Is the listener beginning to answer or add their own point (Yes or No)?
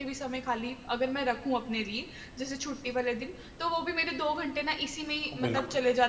No